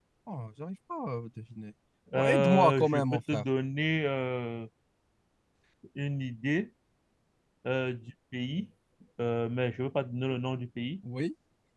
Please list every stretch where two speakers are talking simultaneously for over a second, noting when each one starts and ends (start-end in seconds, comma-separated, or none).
2.2-3.4